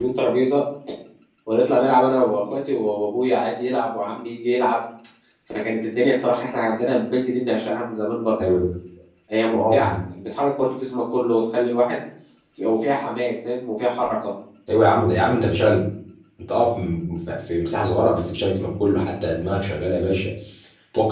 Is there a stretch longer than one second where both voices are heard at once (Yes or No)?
No